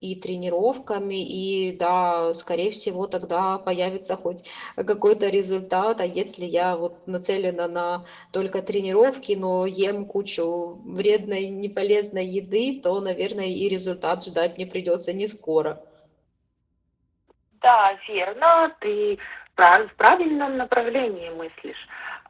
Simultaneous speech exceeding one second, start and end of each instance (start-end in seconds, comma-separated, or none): none